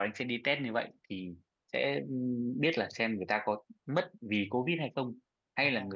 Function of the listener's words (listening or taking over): listening